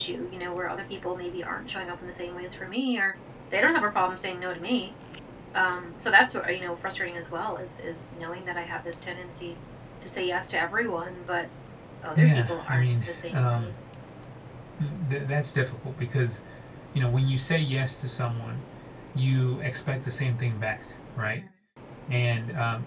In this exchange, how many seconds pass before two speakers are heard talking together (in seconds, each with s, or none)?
12.2 s